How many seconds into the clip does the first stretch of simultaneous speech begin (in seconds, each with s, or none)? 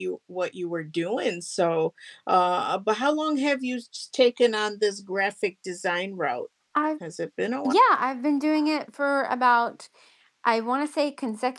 none